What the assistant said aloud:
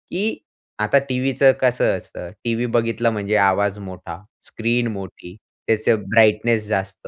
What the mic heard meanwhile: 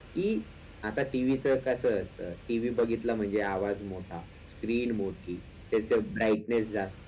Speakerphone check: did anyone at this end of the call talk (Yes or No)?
No